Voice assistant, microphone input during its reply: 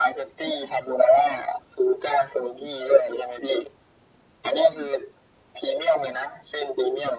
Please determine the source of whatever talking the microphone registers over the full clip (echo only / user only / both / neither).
echo only